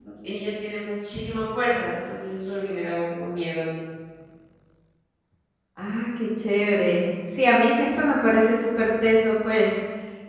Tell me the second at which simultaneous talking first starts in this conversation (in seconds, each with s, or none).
none